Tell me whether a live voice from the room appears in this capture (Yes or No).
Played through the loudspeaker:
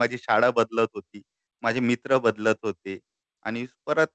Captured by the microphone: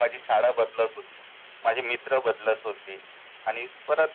No